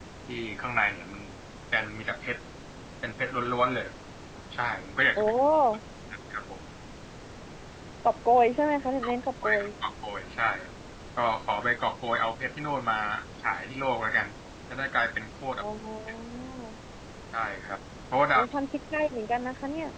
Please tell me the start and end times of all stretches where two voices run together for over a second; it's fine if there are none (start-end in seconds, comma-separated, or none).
none